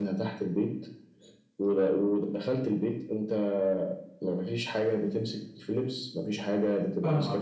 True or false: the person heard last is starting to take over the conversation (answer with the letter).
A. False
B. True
B